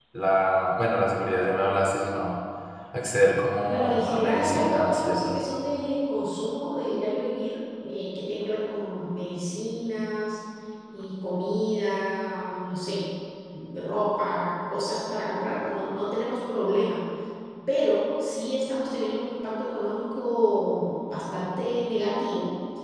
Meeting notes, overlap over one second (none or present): present